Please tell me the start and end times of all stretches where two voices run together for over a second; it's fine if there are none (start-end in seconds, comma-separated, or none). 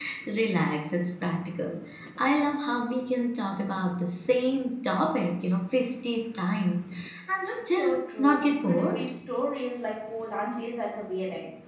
7.4-9.1